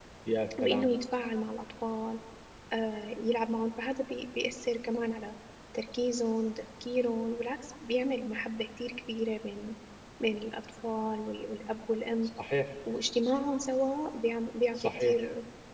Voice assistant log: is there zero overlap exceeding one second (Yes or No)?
Yes